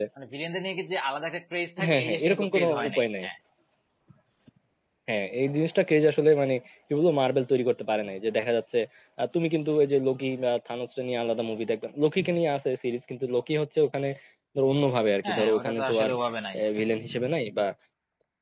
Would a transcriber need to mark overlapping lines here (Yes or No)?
Yes